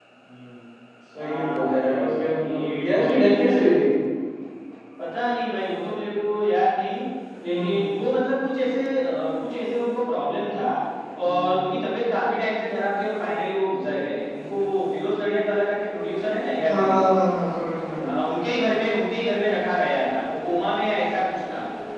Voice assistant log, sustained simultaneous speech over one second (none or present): present